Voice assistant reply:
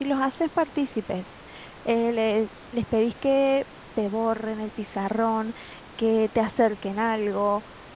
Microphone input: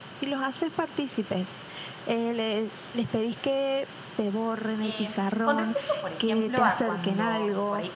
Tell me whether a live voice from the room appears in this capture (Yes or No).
Yes